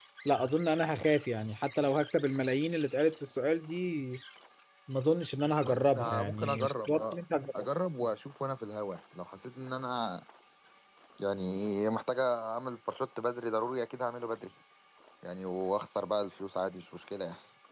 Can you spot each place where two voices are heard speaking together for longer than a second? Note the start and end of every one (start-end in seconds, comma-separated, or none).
5.6-7.2